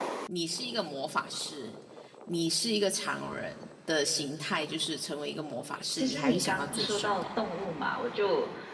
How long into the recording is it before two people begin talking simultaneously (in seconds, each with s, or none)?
6.0 s